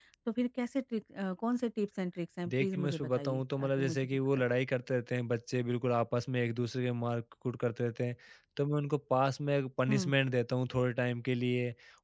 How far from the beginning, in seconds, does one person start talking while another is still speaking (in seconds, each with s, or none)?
2.5 s